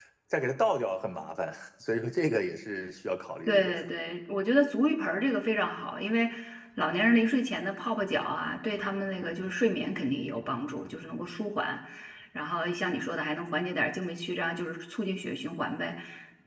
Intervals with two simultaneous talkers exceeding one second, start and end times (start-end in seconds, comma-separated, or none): none